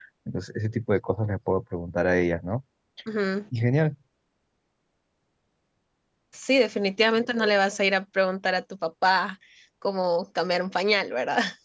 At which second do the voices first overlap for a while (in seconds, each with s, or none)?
none